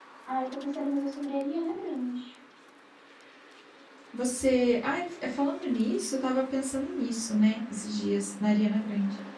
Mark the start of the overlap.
none

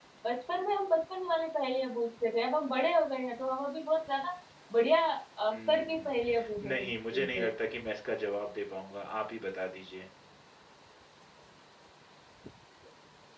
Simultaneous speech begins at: 5.5 s

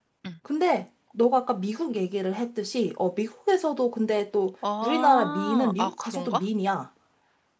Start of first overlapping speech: 4.6 s

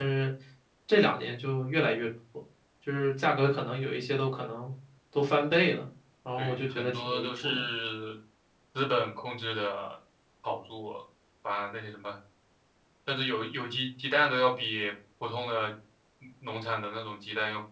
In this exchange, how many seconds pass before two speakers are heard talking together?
6.4 s

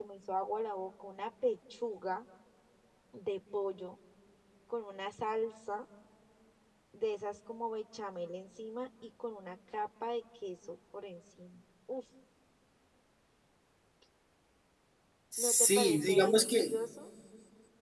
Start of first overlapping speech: 15.4 s

